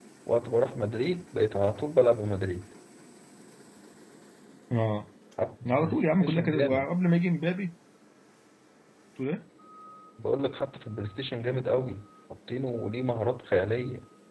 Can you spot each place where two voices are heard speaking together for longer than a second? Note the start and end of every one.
5.7-6.9

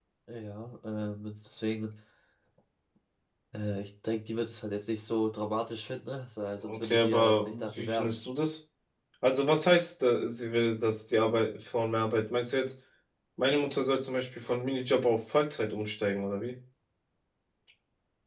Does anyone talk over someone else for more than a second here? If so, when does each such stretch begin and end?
6.6-8.2

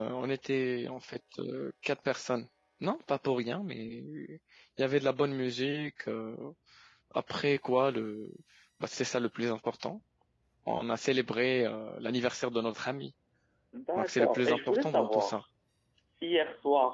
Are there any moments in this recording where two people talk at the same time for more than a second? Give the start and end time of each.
14.0-15.4

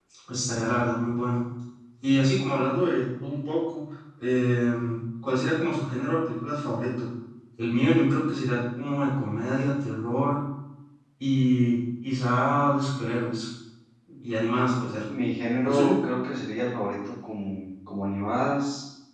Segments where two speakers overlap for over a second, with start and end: none

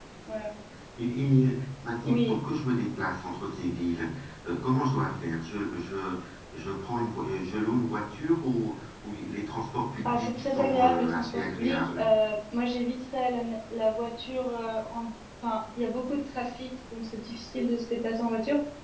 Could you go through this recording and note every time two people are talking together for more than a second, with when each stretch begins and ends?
10.0-12.1

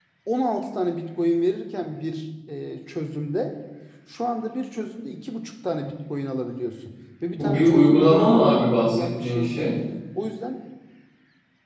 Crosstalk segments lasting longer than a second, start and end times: 7.4-9.8

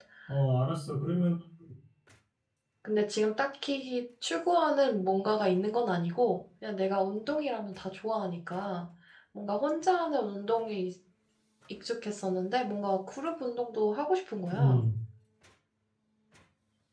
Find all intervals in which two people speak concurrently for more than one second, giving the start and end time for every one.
none

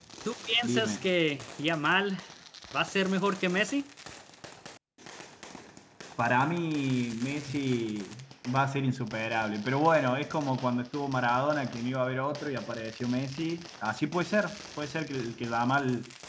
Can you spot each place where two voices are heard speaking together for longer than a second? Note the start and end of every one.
none

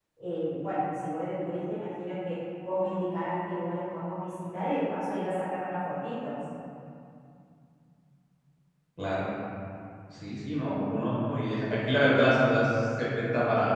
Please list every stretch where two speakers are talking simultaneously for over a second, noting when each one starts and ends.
none

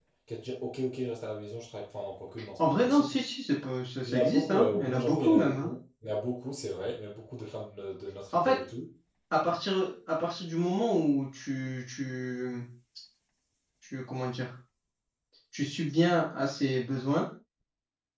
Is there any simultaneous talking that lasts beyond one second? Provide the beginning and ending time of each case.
4.1-5.7

